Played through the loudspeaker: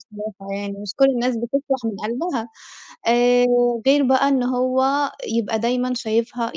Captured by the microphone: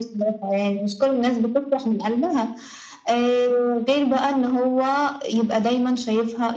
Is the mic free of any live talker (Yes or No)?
Yes